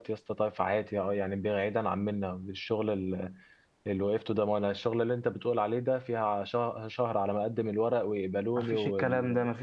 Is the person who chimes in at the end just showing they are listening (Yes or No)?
No